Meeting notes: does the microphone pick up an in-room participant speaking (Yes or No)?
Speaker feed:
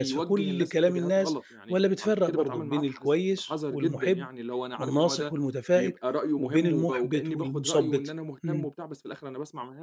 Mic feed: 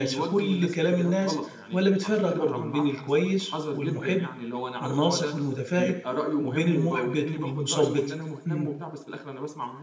No